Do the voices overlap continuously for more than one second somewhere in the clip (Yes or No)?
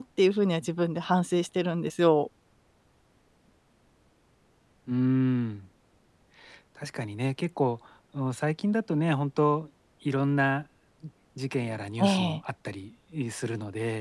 No